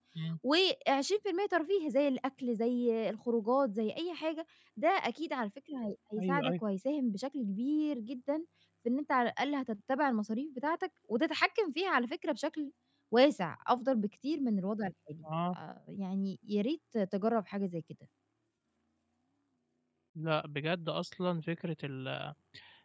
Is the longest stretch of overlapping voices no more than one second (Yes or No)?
Yes